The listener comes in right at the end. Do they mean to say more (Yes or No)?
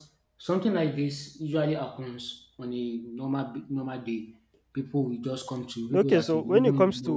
Yes